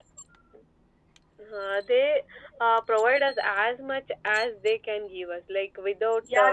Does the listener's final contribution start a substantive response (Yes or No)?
Yes